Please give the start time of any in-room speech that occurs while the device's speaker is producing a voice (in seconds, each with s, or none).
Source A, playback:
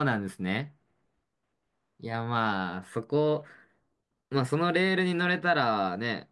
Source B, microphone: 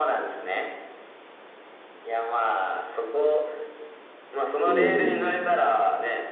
4.6 s